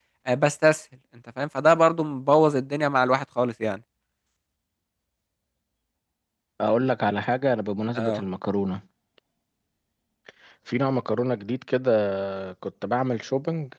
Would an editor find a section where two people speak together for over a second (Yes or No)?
No